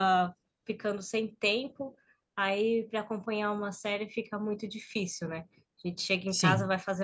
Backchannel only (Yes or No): Yes